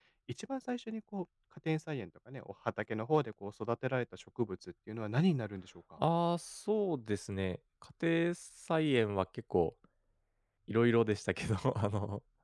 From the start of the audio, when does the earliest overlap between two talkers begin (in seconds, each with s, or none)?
none